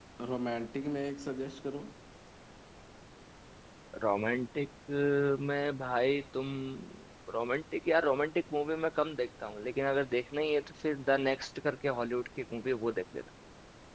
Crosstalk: none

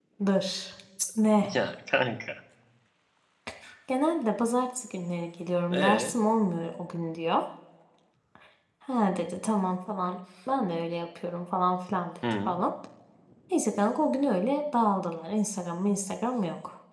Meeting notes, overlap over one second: none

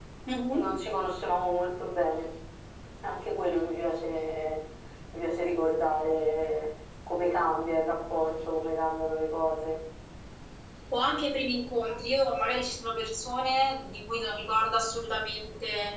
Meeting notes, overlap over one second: none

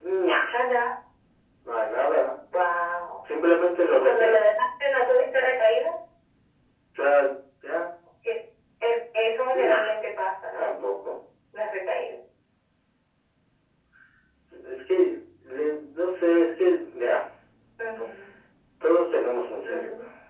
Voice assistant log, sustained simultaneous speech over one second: none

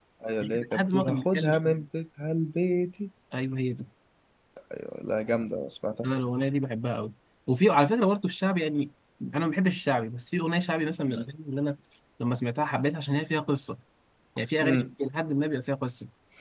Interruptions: present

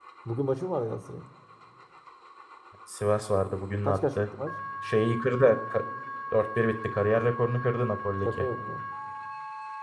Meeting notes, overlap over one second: none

